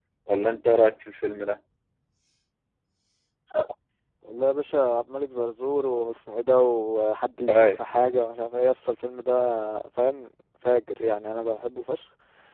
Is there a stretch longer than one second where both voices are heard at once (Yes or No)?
No